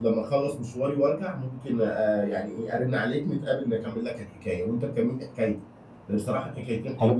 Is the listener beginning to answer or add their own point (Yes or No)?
No